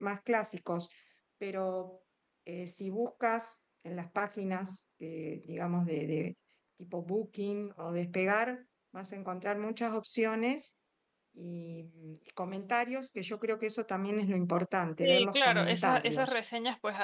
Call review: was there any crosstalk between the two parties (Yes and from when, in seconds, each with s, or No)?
Yes, from 15.0 s